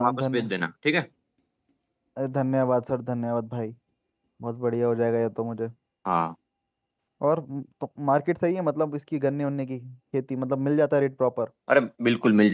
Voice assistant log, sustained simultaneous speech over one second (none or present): none